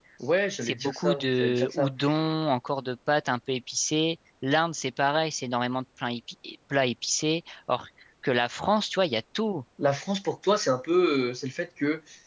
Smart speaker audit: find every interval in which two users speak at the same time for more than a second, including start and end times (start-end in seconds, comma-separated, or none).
0.6-1.9